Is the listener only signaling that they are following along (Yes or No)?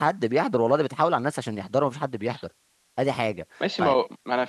No